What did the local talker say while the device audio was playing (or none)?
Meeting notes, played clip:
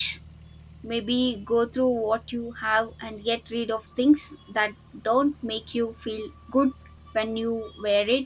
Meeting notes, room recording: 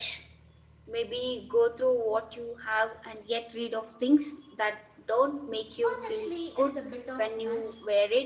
Honestly, it's a bit of mess.